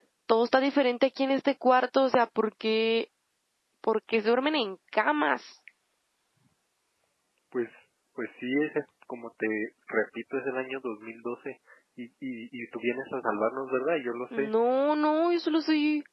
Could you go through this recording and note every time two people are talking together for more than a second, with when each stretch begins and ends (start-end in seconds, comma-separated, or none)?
none